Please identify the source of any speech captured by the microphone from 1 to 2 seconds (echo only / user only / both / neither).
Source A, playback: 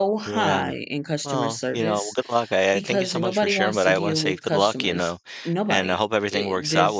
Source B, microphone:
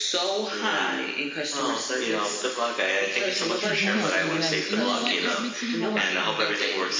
echo only